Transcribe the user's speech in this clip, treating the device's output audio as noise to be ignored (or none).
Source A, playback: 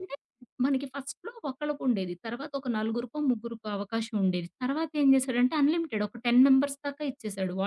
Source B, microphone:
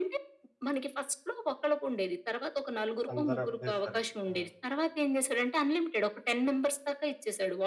అందరూ ఒకటేసారి. ఆ!